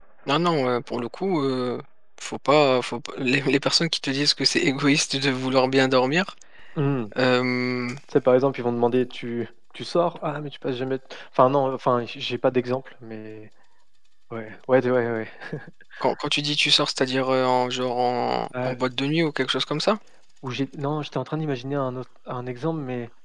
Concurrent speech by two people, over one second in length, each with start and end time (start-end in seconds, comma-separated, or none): none